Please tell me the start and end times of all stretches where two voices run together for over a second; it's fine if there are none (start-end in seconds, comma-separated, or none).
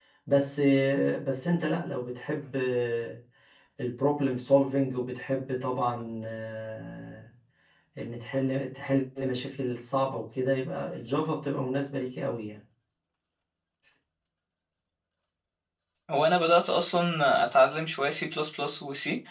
none